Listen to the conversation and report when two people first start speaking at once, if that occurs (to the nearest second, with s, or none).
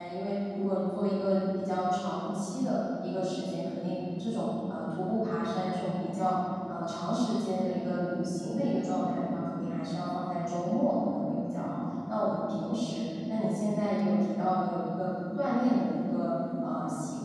none